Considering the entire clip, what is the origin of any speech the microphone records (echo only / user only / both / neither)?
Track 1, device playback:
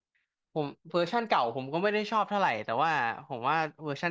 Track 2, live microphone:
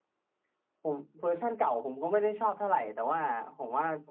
echo only